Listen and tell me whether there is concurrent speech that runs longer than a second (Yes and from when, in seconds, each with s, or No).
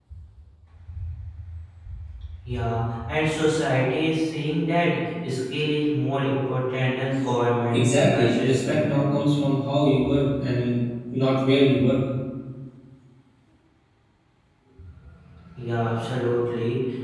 Yes, from 7.7 s